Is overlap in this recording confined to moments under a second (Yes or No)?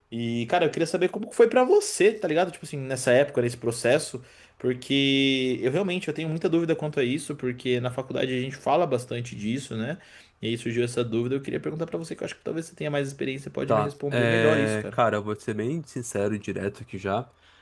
No